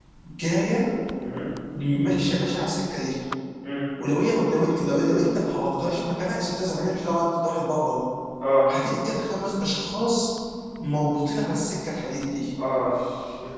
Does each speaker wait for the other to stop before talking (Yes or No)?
Yes